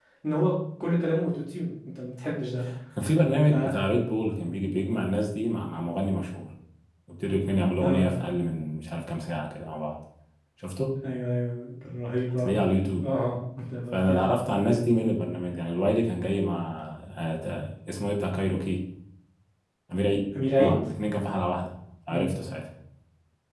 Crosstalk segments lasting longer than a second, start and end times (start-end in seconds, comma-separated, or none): none